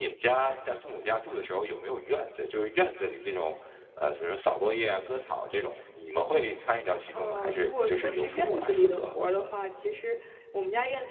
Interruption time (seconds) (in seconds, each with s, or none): 7.2 s